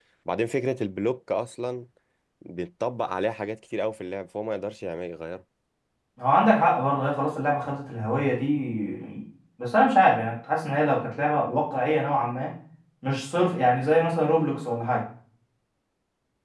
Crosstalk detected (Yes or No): No